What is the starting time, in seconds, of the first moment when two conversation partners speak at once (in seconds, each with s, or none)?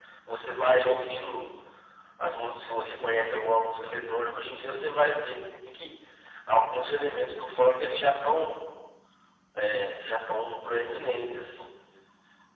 none